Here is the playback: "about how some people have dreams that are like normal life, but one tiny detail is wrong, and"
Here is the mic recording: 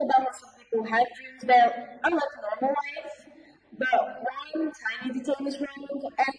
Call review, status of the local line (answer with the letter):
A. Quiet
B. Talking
A